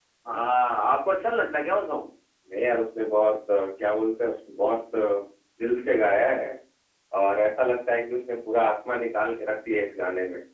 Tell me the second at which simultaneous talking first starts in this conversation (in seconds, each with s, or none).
none